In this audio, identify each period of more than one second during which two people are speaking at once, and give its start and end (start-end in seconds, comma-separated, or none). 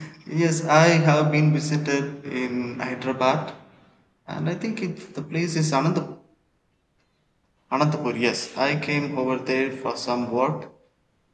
none